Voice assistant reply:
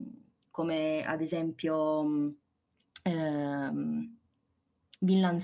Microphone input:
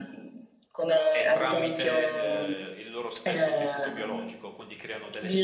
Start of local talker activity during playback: 1.1 s

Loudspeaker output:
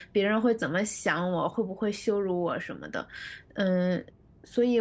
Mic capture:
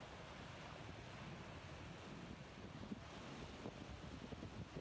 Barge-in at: none

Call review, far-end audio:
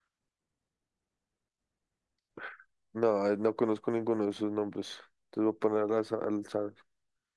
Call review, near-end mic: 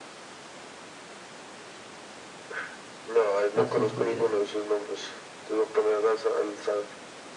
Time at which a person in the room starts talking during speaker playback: 3.5 s

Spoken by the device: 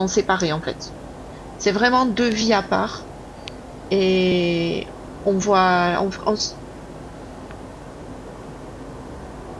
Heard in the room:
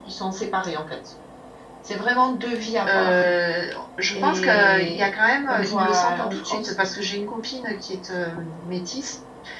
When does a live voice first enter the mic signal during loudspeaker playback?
2.9 s

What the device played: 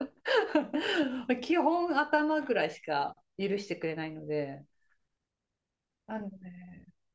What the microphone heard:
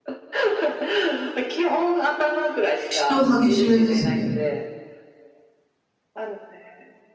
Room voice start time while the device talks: 2.9 s

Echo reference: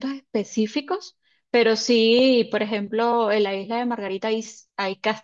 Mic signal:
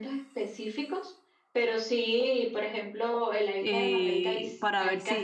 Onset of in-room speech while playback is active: 3.6 s

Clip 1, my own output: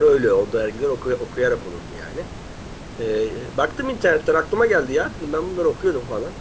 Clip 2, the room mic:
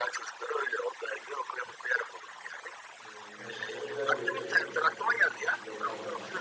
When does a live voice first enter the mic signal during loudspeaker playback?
3.0 s

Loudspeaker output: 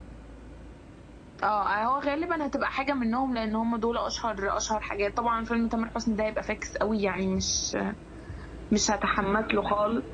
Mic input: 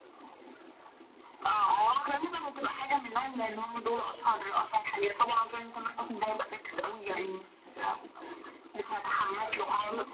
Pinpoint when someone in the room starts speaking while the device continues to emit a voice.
none

